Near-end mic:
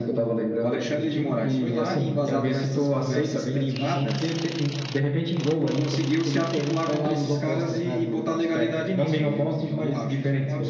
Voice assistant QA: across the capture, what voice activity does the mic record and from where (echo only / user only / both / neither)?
both